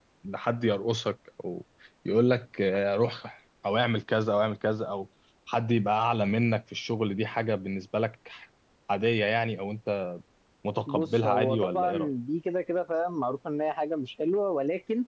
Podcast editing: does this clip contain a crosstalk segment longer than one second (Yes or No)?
Yes